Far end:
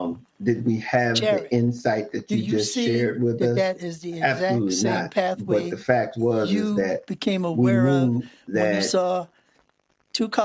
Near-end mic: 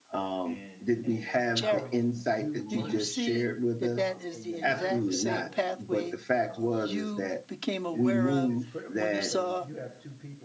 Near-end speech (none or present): present